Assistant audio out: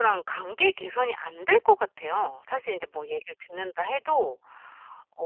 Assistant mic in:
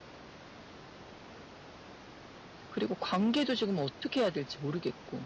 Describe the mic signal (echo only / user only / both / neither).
user only